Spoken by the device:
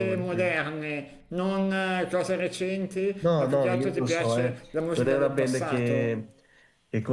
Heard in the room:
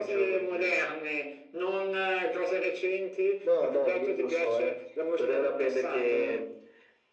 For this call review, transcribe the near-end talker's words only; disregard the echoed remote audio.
none

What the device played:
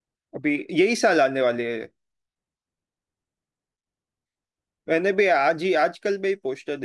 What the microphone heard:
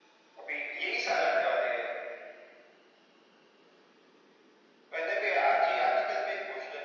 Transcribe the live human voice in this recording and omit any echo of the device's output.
none

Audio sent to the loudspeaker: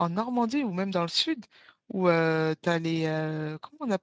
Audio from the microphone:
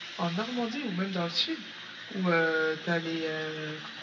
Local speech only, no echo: none

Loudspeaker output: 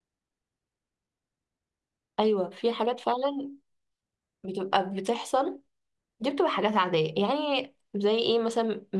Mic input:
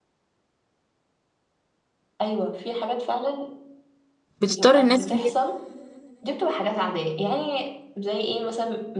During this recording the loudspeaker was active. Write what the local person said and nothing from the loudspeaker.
بتضطر الناس إن هي

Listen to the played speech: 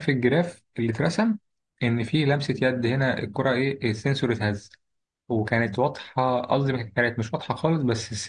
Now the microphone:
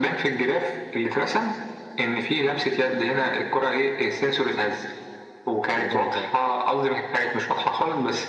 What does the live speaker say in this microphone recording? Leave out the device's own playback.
اليورو اللي فات

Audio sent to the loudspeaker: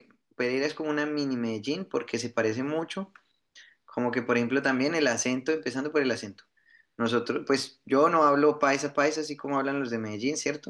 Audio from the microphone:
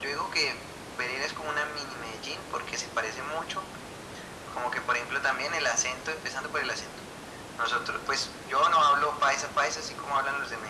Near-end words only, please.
none

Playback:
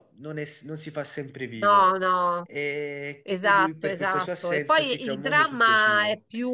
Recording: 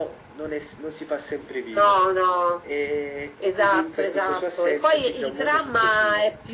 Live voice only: none

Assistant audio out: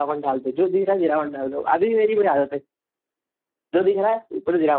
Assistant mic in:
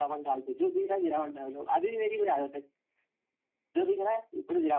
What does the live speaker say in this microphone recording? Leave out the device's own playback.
none

